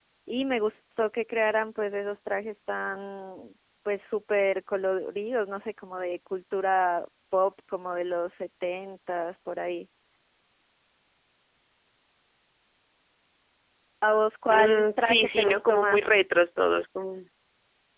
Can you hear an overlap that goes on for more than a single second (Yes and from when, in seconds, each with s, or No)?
Yes, from 14.5 s